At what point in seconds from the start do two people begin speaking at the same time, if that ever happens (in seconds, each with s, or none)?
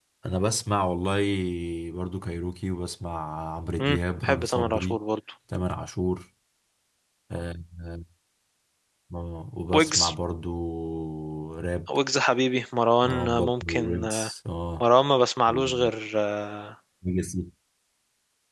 3.8 s